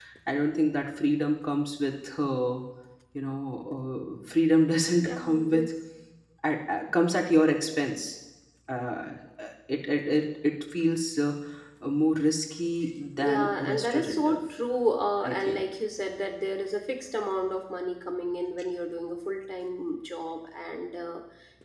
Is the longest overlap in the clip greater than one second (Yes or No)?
Yes